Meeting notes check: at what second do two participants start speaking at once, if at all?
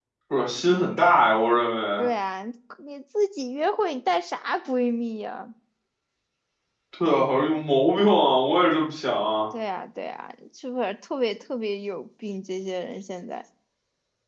none

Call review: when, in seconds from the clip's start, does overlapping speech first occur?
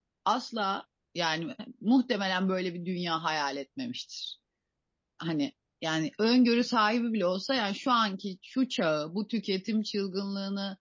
none

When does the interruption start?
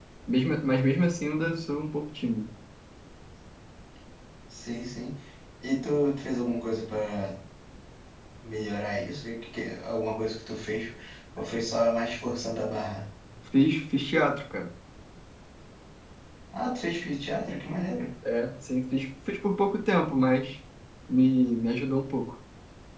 none

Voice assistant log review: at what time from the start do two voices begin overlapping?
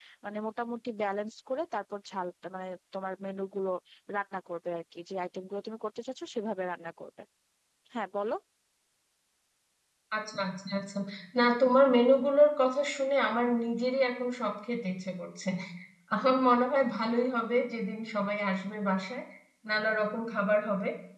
none

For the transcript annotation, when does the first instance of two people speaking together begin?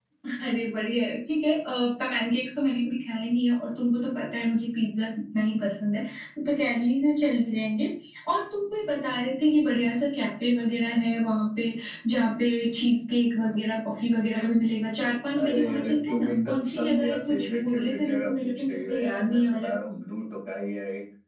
15.4 s

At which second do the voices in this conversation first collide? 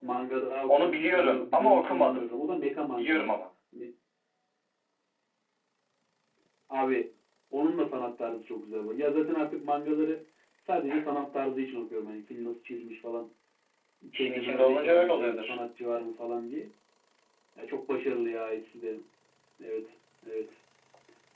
0.7 s

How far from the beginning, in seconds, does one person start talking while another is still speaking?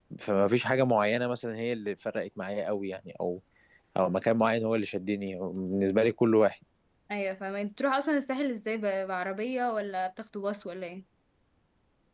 none

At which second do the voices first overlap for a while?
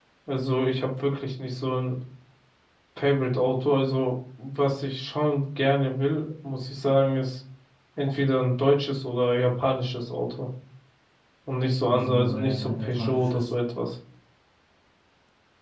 11.9 s

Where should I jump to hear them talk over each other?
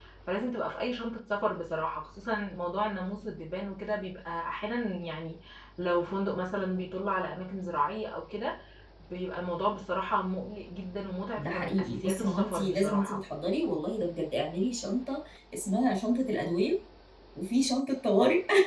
11.4 s

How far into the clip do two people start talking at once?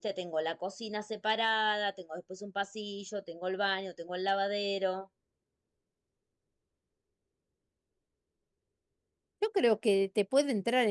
none

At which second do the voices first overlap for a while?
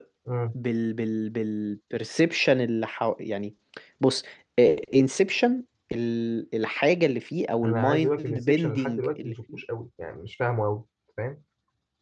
7.6 s

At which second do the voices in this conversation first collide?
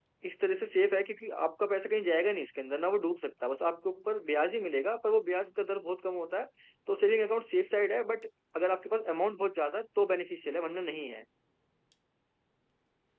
none

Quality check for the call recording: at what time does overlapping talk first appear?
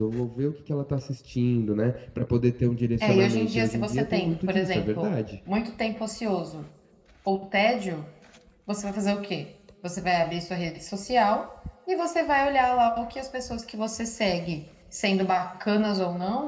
3.0 s

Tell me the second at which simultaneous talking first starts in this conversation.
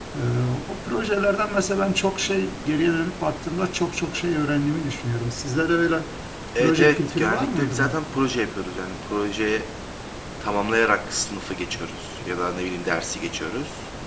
6.6 s

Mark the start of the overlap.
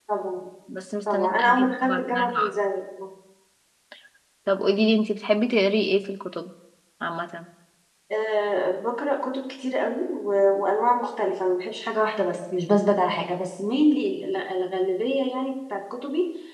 1.1 s

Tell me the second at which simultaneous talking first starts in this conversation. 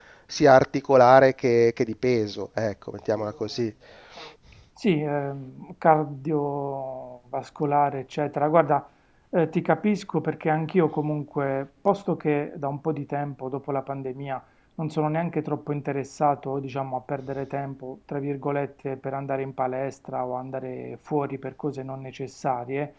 none

